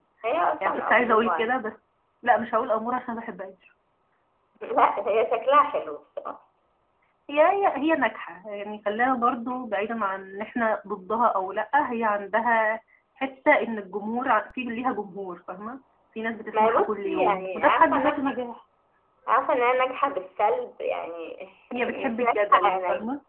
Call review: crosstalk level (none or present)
present